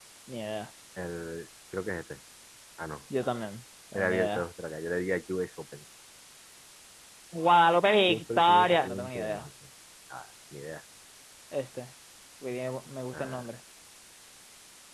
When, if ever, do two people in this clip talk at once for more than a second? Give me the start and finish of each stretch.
8.1-9.5

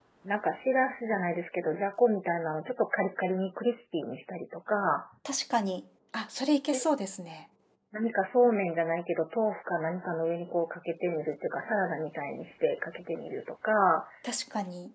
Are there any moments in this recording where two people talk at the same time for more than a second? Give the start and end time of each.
none

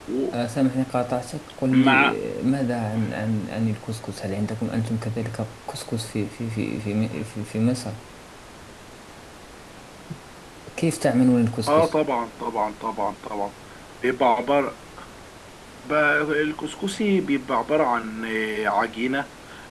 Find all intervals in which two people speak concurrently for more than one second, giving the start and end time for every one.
none

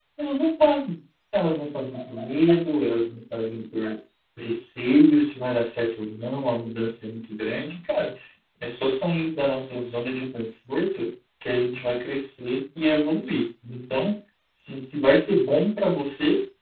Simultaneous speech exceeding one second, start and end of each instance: none

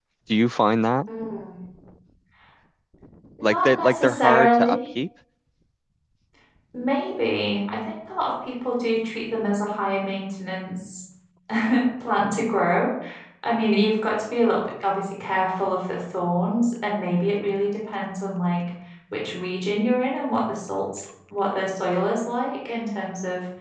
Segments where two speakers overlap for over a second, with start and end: 3.4-4.8

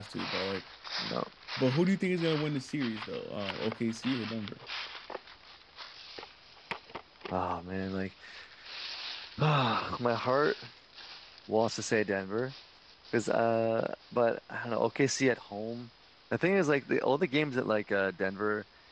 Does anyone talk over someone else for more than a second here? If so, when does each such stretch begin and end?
none

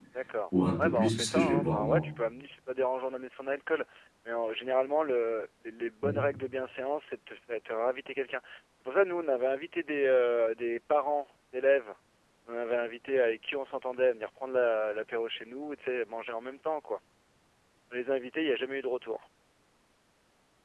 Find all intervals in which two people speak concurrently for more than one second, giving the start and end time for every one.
0.8-2.0

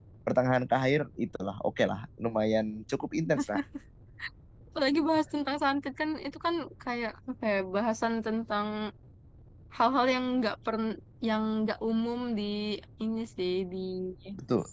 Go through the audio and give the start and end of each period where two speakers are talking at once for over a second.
none

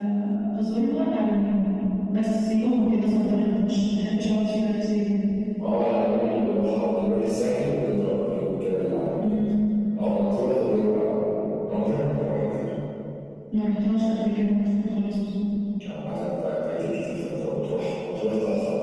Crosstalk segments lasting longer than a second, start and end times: none

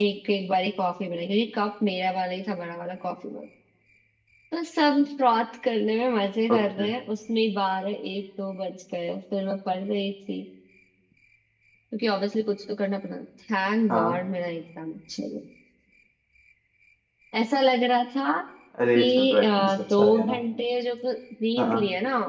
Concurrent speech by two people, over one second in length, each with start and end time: 19.0-20.4

